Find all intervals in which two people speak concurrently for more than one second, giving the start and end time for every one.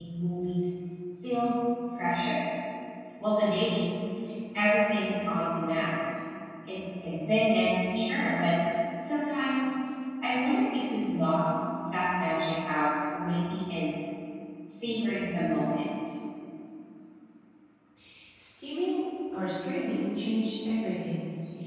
none

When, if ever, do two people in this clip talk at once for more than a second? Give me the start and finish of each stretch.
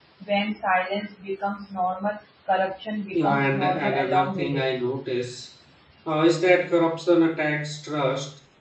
3.1-4.7

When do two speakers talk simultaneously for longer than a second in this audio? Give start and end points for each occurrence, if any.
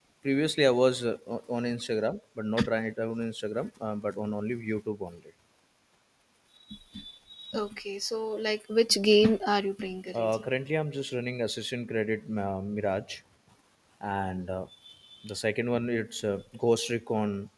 none

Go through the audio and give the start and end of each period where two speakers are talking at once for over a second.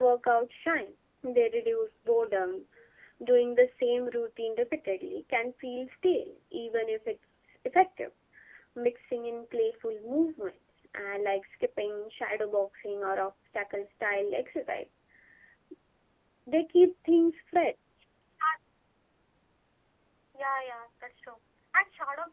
none

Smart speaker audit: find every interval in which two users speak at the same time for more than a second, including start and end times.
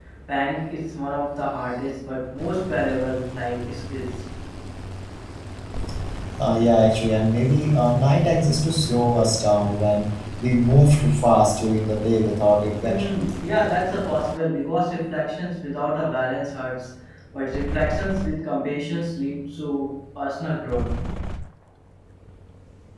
none

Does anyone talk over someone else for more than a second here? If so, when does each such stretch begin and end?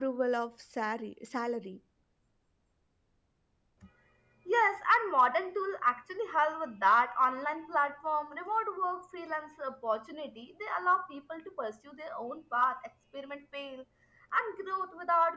none

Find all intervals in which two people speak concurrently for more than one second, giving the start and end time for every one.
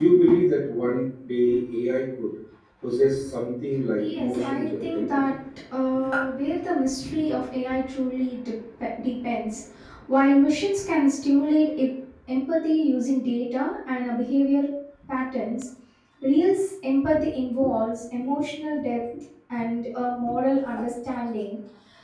4.0-5.2

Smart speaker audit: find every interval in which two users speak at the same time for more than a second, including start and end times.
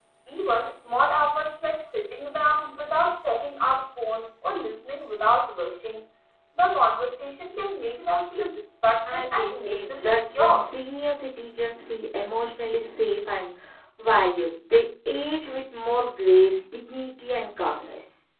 9.1-10.7

